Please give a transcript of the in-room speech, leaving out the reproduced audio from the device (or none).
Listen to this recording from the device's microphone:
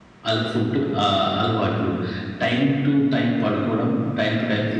none